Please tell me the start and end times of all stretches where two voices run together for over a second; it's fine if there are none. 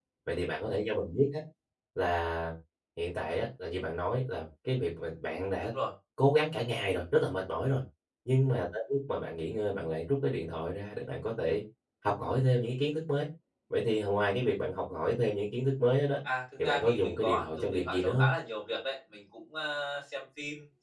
16.6-18.3

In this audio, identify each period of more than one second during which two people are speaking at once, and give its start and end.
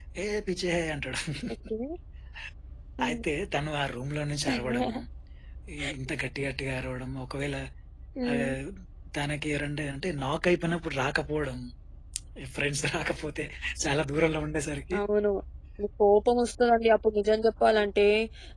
none

